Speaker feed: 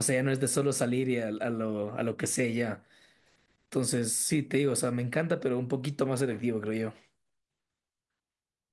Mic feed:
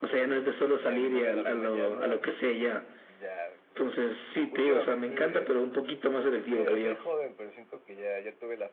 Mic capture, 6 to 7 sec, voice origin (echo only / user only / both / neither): both